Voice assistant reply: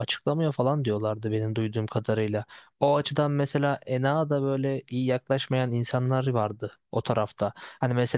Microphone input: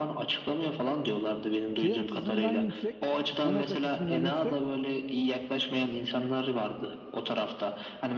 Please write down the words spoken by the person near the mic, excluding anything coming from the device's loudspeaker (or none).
Şey açısından yüksek, enak açısından yüksek,